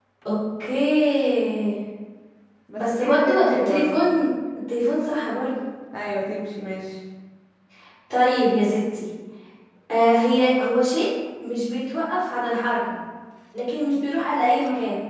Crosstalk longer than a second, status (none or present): present